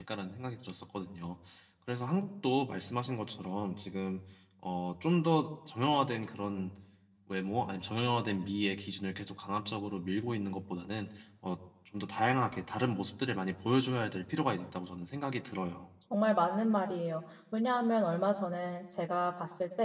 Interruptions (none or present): none